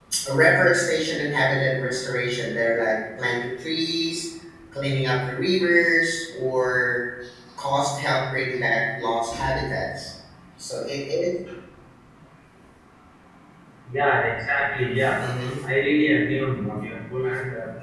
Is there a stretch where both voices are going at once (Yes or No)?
No